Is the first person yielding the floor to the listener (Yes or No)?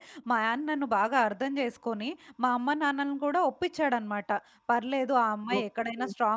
No